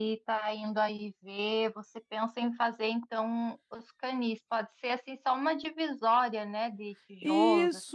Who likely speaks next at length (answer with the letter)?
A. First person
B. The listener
B